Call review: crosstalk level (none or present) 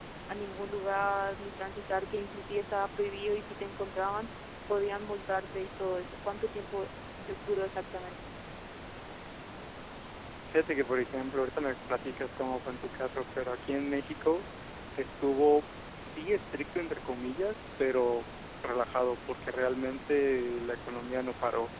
none